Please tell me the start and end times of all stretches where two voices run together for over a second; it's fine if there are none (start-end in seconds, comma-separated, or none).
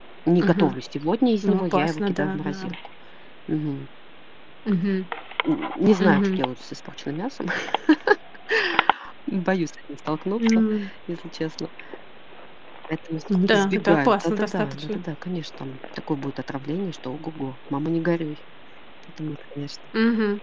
1.4-2.8, 13.5-15.0